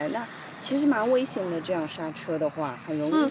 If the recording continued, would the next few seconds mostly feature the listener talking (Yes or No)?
Yes